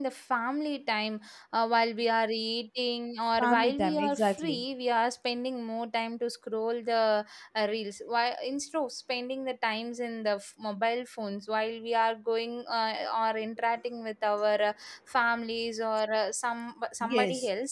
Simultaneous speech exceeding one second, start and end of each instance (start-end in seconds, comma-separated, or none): 3.4-4.6